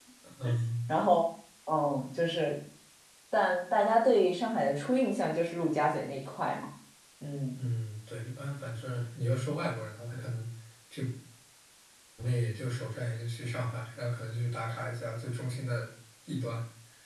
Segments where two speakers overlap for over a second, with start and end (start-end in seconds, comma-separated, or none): none